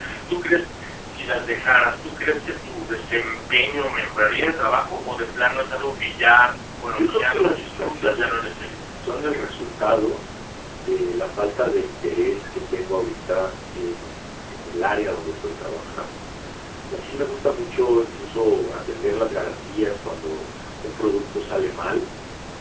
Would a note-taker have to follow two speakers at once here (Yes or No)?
Yes